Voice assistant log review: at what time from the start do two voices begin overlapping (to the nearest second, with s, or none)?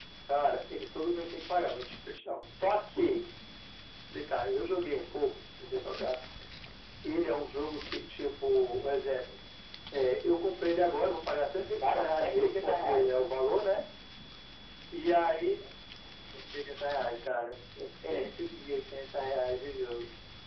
12 s